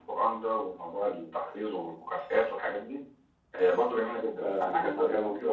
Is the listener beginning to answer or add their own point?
Yes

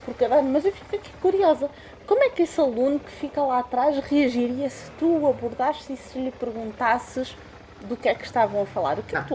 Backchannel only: No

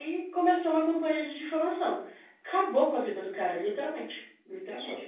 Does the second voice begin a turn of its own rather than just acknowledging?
No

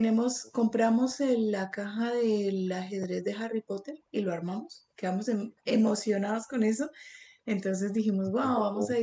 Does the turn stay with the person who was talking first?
Yes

